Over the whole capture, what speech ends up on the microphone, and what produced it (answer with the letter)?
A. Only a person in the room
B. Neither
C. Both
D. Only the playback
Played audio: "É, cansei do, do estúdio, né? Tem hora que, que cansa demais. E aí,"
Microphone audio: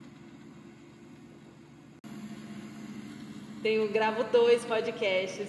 A